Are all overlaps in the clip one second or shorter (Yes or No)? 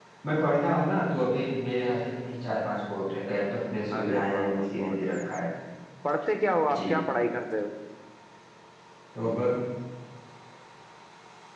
No